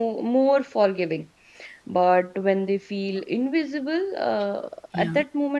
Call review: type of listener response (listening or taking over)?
listening